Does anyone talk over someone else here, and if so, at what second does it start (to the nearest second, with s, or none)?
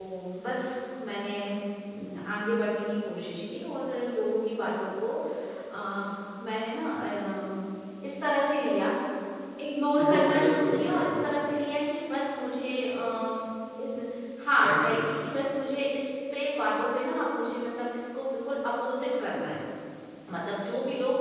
10 s